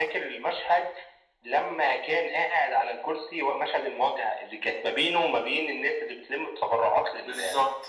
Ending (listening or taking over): taking over